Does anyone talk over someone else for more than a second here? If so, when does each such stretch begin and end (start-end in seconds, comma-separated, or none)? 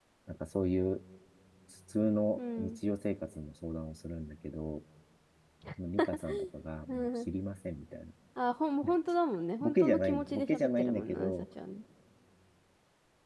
9.6-11.3